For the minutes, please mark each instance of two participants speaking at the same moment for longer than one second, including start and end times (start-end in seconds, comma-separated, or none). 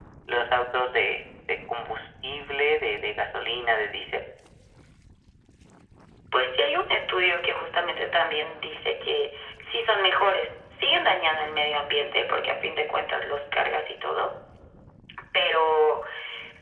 none